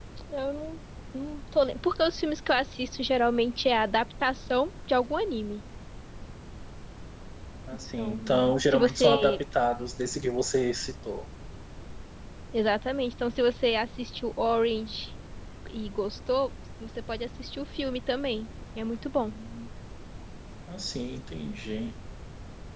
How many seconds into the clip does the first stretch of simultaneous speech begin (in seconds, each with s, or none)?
8.0 s